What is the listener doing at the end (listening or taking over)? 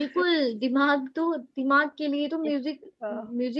listening